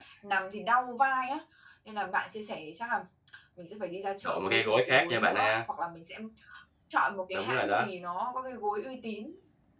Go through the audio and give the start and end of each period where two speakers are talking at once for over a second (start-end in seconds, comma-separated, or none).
4.2-5.5